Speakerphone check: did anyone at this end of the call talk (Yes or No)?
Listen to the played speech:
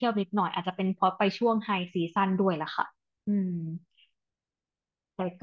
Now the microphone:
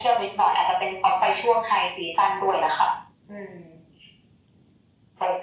No